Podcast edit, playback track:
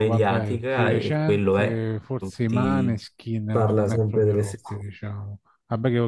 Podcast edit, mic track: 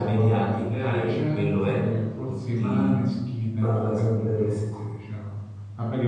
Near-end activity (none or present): none